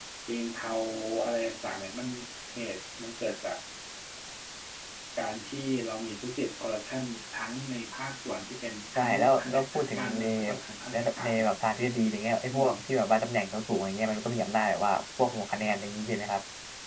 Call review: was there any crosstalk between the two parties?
Yes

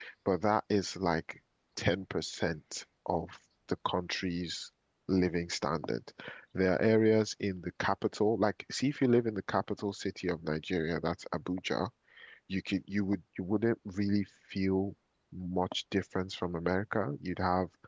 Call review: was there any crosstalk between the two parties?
No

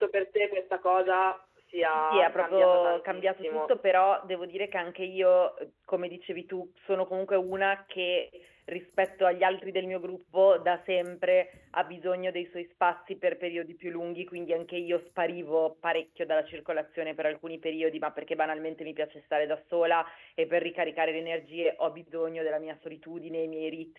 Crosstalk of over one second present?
Yes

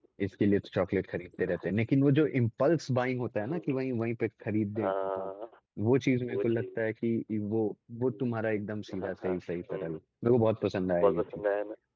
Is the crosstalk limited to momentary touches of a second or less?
No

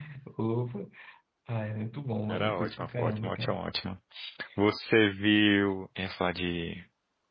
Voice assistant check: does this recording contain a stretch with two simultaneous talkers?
Yes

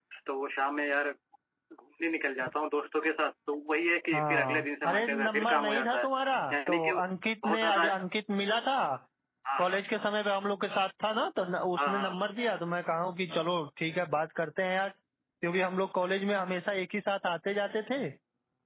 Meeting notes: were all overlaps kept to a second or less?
No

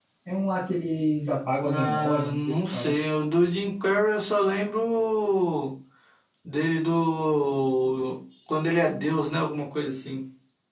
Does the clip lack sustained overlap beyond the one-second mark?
No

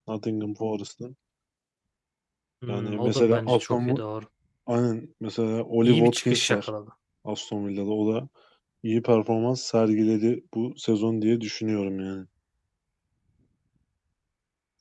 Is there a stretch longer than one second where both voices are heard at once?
Yes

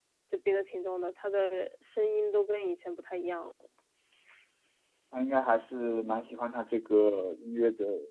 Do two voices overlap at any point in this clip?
No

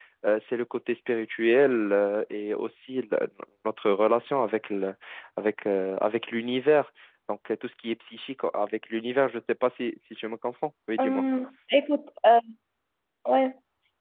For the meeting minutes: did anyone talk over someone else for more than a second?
No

